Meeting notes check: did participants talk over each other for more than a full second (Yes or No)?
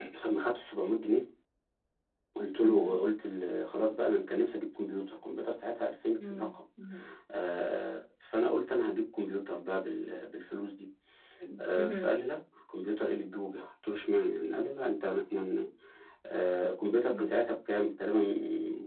No